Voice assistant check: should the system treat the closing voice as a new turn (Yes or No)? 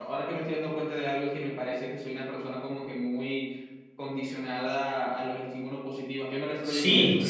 Yes